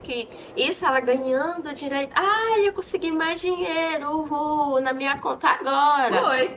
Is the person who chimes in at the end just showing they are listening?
No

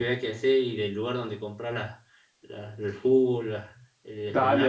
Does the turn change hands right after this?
Yes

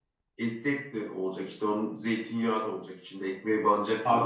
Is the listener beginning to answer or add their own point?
Yes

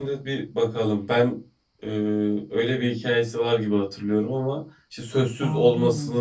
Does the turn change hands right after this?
No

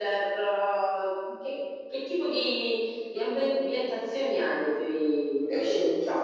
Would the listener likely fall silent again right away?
No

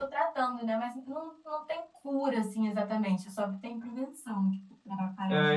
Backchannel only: No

